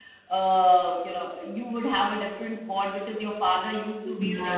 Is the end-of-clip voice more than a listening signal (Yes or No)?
Yes